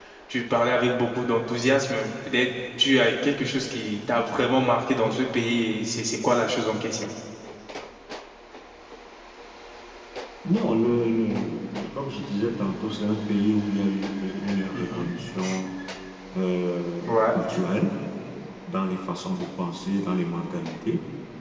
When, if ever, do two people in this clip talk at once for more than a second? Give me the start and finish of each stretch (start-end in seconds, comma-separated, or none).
none